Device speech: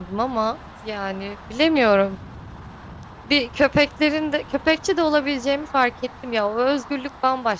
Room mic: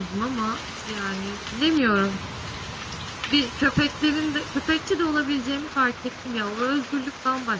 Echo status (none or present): present